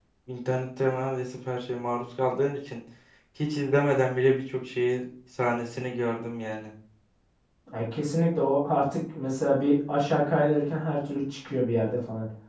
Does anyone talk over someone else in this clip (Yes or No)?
No